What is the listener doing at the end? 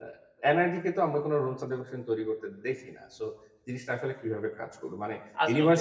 listening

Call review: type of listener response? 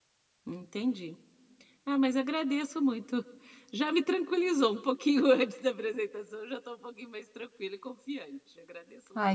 taking over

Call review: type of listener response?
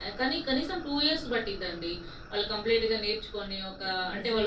taking over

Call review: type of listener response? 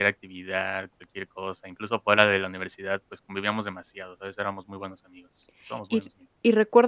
taking over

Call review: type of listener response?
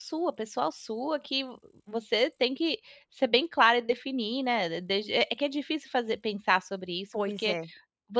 listening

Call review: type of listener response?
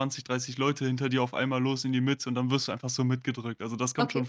taking over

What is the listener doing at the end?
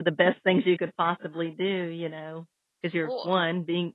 listening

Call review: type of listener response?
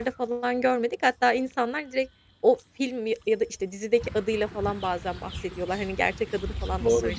taking over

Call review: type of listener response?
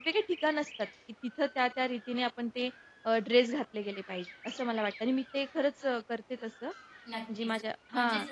taking over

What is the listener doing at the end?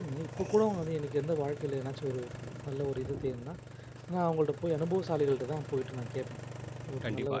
taking over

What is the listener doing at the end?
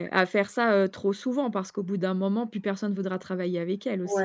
taking over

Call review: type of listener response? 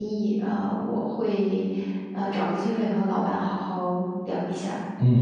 taking over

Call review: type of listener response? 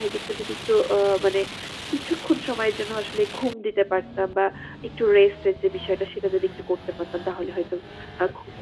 taking over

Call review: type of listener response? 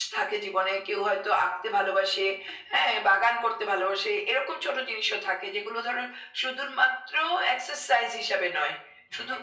listening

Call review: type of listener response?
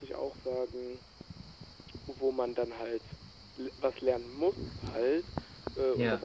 listening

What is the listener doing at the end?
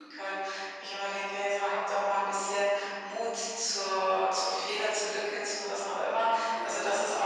listening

